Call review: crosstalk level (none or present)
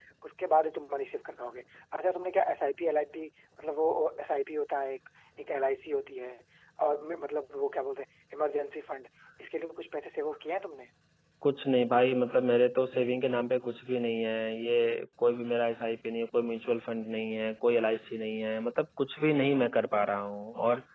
none